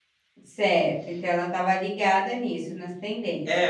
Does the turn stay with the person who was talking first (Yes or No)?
No